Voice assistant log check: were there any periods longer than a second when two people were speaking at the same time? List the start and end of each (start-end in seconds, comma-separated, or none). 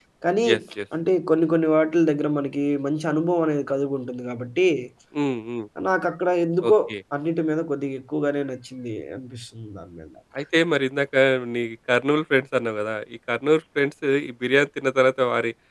none